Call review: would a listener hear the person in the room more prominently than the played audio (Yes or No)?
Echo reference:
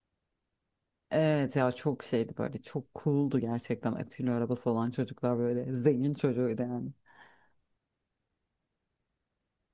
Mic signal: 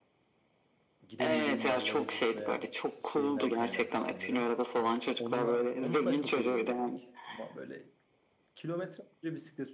No